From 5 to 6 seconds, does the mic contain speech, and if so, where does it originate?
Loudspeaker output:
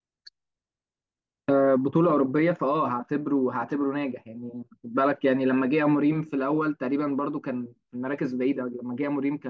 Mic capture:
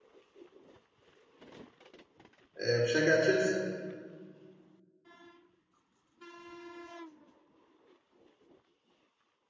neither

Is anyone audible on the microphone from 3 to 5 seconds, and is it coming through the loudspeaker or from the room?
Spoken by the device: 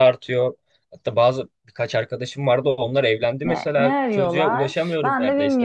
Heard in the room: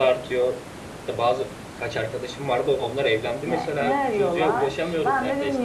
echo only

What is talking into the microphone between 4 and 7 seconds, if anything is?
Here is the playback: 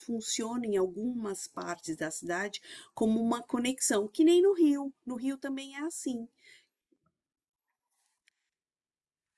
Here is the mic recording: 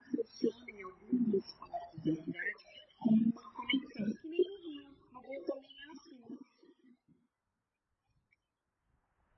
echo only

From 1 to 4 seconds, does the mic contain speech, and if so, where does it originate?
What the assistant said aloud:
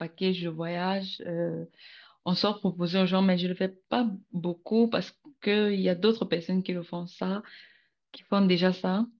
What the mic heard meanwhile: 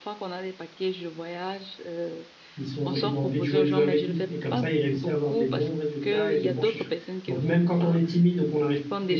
both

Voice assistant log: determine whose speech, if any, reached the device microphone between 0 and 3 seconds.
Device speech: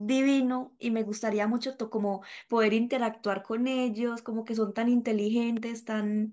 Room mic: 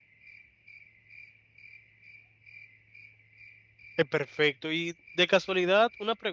neither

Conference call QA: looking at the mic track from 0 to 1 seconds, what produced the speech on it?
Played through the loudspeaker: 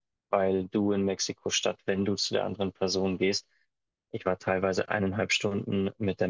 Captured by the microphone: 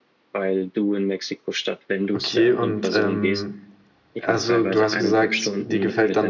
echo only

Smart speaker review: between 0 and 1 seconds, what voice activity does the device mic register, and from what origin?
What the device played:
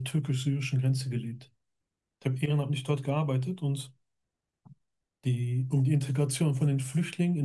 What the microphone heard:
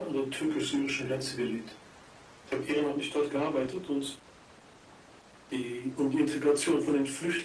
echo only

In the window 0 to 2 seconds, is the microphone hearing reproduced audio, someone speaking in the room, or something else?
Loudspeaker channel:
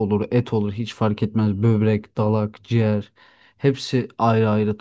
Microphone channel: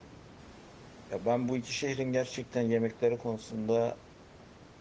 user only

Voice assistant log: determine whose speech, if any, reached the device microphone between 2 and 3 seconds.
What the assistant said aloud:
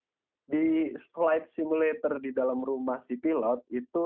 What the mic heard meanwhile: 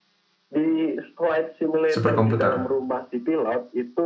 both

